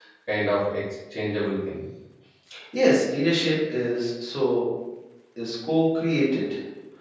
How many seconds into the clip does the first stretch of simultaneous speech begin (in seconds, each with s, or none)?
none